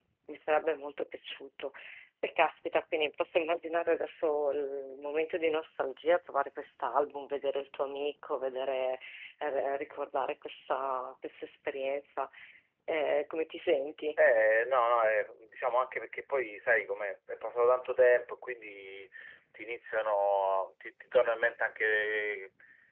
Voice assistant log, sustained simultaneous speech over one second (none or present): none